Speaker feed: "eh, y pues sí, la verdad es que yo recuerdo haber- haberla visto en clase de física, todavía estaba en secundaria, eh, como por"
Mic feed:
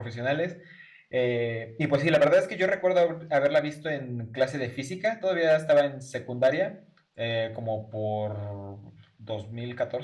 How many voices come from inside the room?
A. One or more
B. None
B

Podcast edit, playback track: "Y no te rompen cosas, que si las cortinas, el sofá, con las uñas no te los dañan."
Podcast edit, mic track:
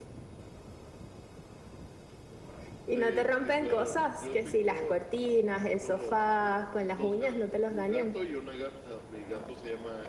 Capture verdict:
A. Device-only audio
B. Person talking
B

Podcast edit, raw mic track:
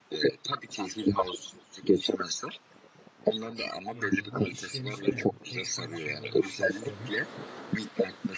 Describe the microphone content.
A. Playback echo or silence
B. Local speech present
B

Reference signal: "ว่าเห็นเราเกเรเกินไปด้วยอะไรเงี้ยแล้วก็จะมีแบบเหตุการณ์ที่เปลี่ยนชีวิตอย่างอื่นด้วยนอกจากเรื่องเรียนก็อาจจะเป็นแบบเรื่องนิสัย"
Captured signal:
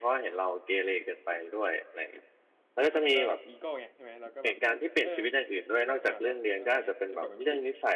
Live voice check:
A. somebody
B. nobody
A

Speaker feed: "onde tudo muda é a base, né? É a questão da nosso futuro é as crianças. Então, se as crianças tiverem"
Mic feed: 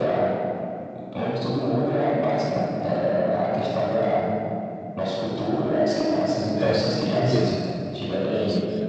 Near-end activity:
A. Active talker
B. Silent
A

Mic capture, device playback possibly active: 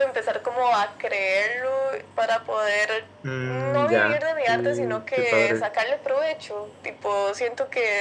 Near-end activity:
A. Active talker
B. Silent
A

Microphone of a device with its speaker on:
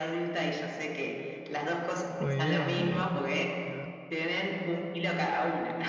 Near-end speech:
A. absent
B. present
B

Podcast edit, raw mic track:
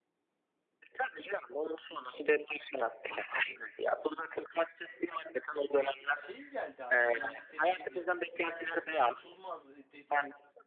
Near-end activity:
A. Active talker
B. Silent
A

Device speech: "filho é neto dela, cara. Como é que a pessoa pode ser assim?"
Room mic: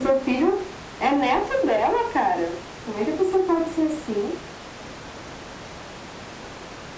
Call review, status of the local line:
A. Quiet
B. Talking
A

